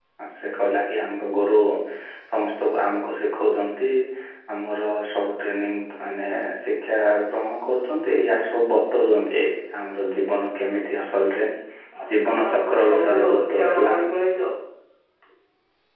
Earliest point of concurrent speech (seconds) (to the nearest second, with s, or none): 12 s